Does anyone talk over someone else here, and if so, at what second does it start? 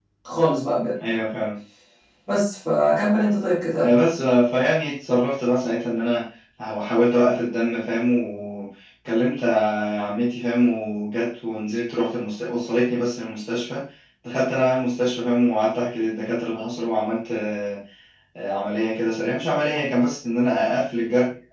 none

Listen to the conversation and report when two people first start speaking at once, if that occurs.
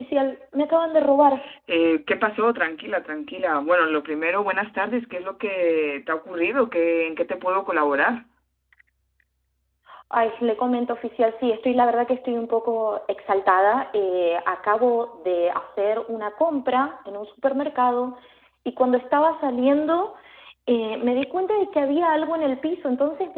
none

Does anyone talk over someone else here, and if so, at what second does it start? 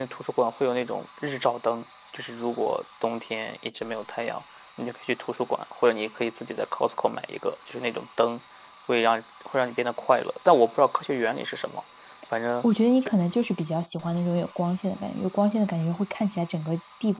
none

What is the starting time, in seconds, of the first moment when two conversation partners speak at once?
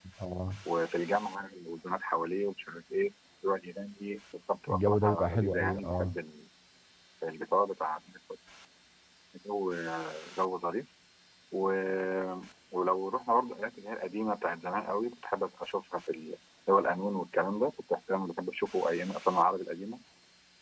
4.7 s

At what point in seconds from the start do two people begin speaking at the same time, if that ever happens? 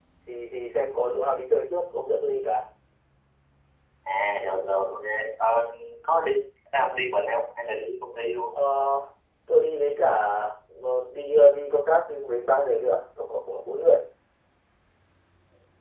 none

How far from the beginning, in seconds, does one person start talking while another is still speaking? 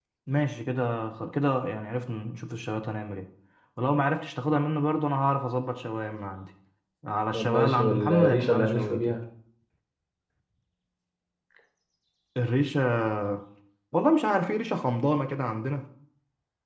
7.3 s

